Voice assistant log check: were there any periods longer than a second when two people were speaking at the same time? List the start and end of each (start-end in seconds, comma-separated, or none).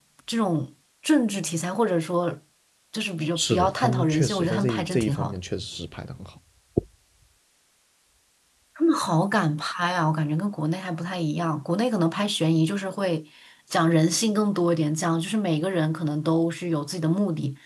3.4-5.4